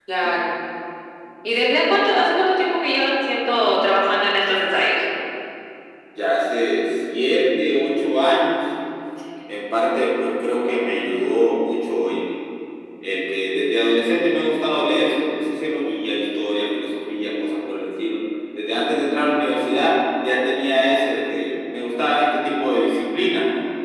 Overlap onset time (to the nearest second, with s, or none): none